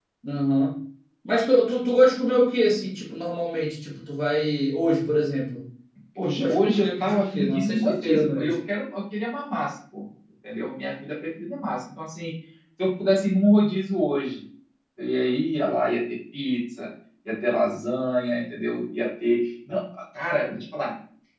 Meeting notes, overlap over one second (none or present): present